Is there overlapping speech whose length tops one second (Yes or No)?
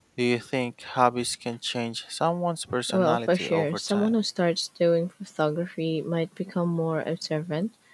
Yes